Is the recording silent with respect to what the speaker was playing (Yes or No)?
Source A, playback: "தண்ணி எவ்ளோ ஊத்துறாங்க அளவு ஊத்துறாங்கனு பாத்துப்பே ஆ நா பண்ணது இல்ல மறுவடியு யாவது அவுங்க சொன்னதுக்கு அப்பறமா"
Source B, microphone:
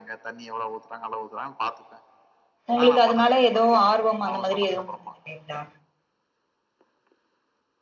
No